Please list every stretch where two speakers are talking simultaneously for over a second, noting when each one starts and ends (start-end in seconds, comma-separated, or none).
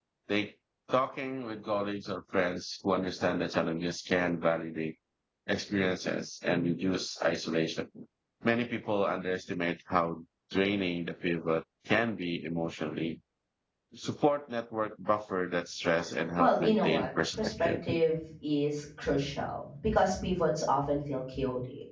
16.4-17.8